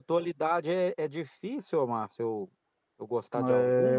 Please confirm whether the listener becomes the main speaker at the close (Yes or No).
Yes